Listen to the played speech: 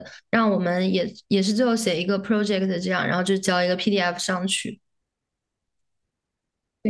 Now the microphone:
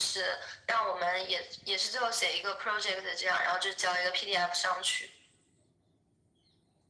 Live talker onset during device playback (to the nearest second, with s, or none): none